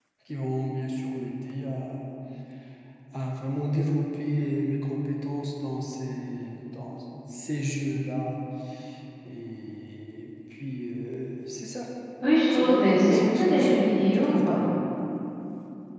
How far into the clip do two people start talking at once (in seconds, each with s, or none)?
12.5 s